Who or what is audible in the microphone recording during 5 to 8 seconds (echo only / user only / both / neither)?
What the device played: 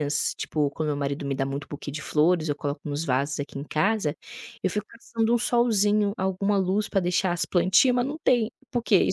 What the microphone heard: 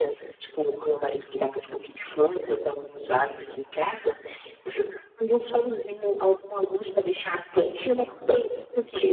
echo only